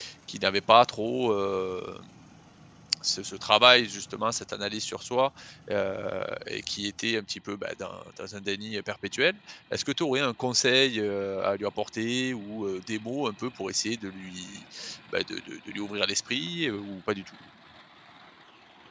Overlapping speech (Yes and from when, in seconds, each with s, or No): No